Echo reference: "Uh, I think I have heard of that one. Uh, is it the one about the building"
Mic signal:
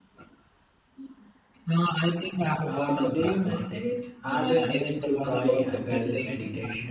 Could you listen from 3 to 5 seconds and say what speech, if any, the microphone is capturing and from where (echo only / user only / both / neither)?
both